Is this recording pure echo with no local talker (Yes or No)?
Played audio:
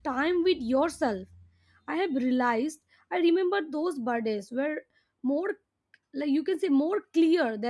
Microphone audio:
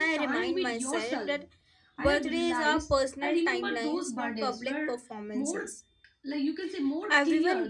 No